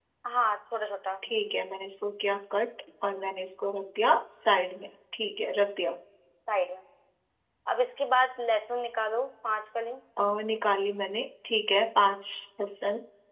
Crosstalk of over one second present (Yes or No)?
No